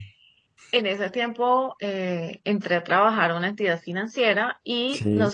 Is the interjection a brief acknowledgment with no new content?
Yes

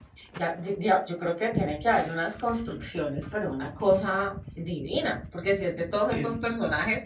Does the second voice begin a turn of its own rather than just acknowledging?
No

